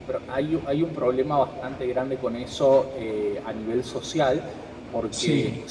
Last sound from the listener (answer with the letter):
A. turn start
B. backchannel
B